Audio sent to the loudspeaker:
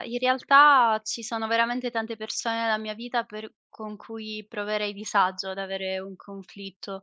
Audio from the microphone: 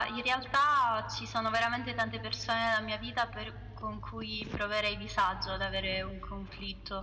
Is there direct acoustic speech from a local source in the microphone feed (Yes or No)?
No